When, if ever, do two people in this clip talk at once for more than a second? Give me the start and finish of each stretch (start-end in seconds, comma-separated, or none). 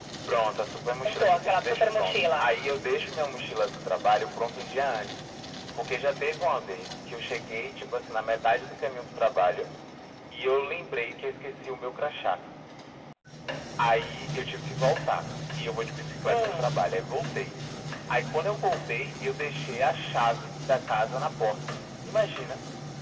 1.1-2.5